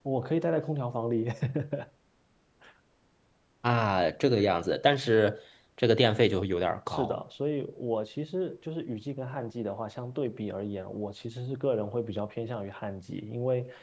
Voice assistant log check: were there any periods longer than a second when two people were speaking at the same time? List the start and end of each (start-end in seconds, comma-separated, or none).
none